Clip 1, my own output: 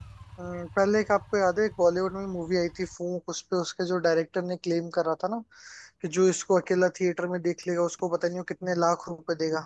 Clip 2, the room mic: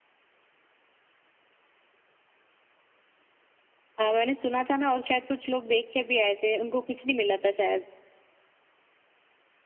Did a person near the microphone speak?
Yes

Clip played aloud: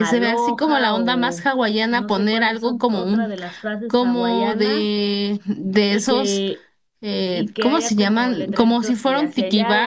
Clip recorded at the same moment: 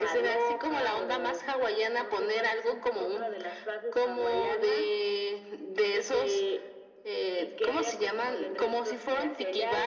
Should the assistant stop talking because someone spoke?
No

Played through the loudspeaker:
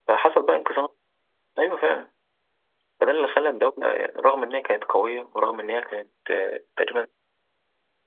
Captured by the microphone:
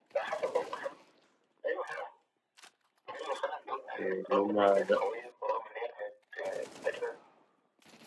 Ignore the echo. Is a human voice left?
Yes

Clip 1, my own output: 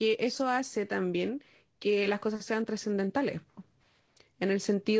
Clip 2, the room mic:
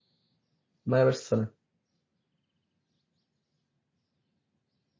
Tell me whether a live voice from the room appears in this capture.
Yes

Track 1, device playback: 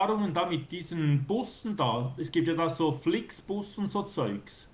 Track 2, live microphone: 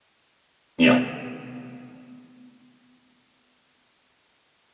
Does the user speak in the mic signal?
Yes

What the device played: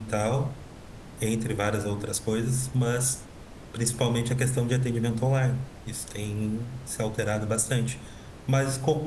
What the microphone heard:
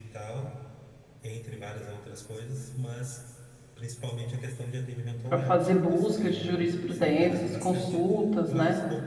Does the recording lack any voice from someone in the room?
No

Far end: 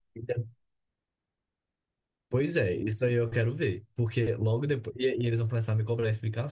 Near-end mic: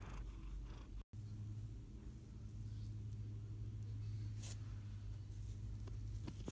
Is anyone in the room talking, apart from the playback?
No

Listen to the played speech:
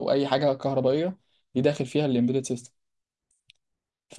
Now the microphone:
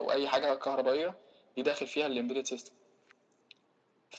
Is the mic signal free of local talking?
Yes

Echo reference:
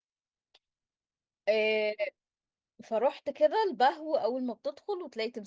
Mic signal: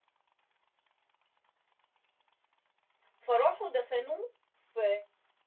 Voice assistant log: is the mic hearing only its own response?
No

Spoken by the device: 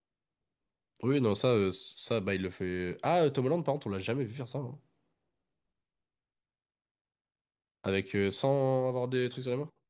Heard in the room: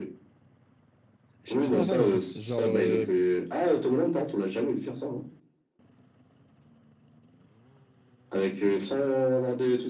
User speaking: Yes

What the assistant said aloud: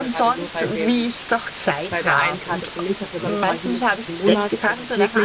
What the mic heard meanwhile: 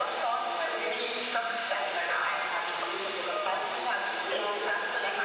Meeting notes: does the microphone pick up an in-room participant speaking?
No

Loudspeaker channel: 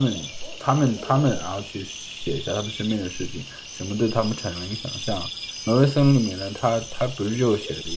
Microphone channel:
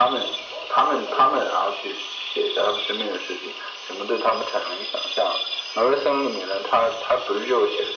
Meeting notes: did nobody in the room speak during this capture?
Yes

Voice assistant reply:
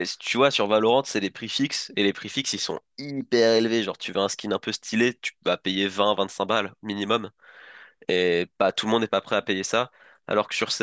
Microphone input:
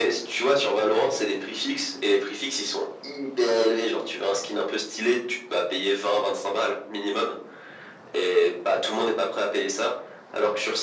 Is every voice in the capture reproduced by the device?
Yes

